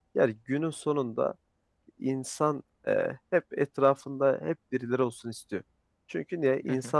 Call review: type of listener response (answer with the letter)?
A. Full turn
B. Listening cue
B